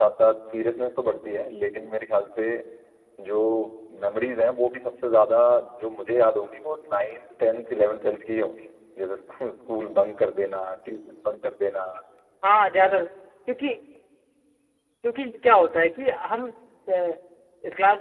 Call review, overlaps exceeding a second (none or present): none